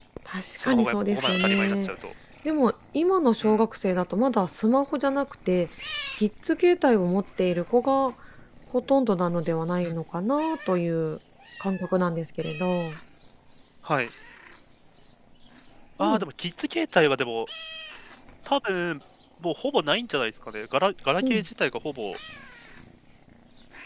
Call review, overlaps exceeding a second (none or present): present